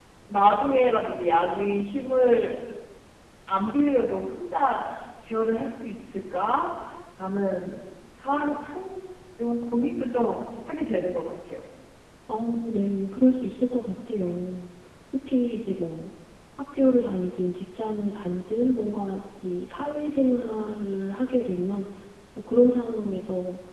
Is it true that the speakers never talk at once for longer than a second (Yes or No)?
Yes